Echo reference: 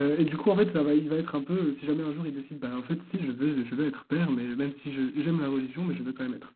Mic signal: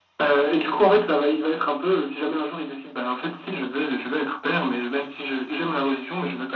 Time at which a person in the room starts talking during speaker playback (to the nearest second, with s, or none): none